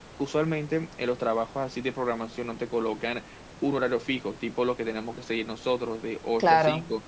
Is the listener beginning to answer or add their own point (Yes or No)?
No